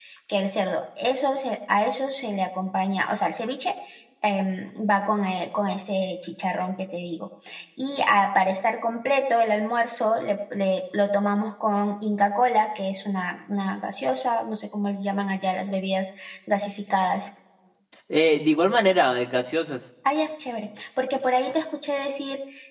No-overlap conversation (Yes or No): Yes